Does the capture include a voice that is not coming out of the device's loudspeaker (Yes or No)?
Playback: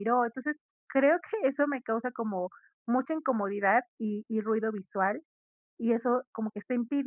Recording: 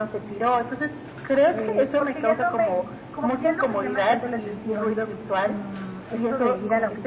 Yes